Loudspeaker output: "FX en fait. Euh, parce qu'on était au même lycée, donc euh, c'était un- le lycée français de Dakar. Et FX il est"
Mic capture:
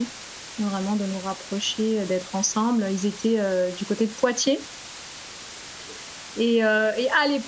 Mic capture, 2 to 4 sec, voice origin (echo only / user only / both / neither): user only